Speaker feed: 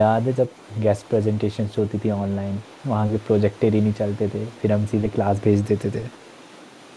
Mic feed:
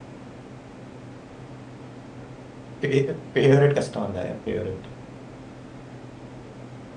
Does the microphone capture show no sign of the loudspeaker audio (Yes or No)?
Yes